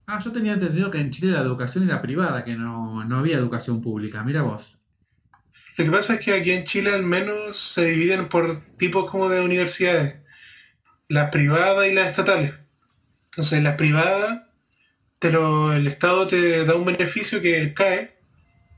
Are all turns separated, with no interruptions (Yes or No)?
Yes